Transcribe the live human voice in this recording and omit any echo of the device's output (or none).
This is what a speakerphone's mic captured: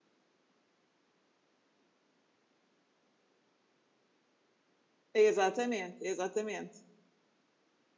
Exatamente, exatamente.